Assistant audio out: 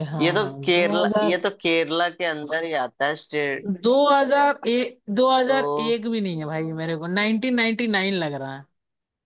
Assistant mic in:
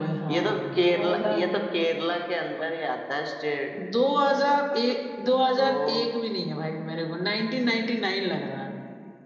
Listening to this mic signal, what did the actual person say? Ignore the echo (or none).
none